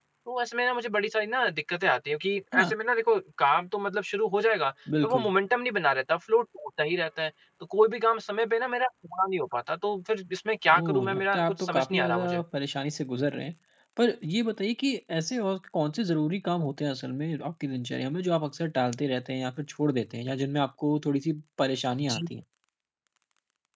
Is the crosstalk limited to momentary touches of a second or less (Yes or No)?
No